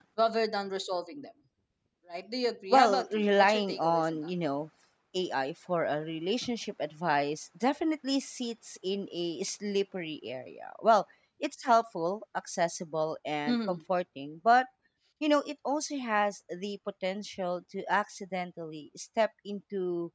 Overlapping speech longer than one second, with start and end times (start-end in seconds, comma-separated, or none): 2.7-4.3